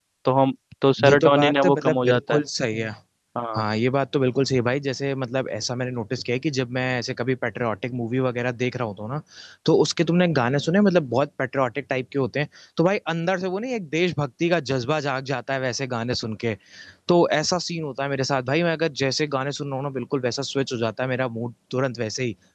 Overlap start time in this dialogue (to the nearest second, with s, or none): 1 s